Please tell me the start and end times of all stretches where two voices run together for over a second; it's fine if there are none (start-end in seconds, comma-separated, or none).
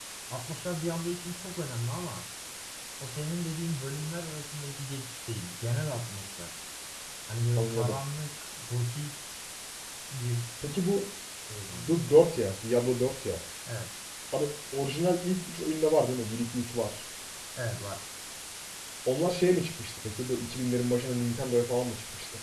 none